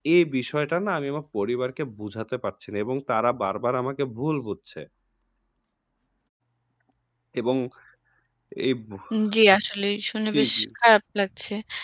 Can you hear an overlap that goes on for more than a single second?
No

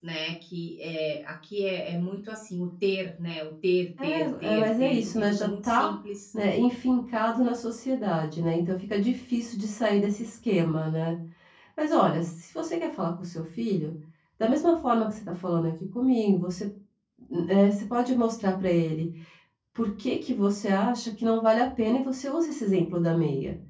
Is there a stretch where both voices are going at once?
Yes, from 4.0 s

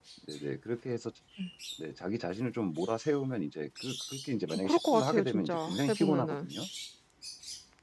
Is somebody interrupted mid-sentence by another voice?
Yes, from 4.5 s

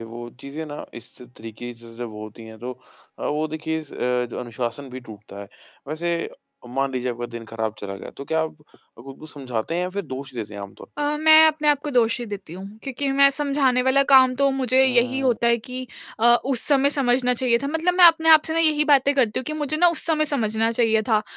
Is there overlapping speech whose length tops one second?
No

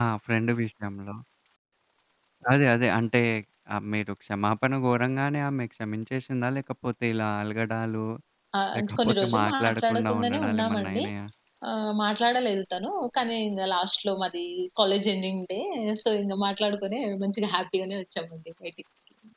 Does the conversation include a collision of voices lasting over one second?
Yes, from 8.8 s

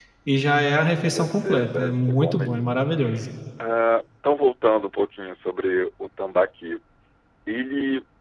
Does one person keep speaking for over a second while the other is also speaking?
Yes, from 0.9 s

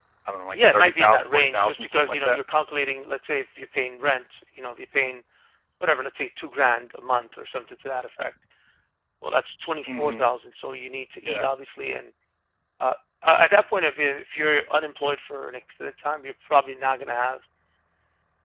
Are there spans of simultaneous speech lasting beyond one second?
Yes, from 0.5 s

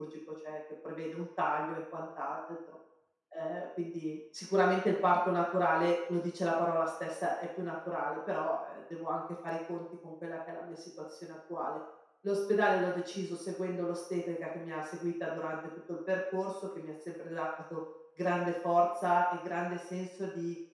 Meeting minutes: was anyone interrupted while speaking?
No

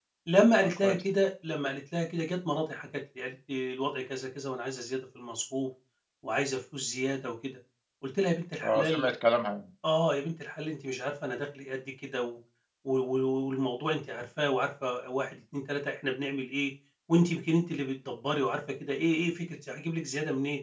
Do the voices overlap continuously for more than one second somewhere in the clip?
No

